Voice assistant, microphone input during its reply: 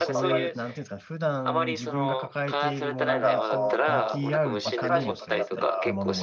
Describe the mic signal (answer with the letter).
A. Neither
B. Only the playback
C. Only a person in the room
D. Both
D